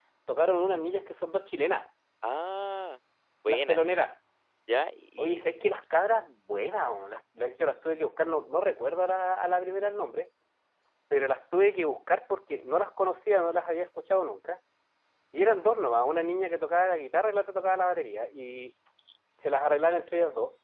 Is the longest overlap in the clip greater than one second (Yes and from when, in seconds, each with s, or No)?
No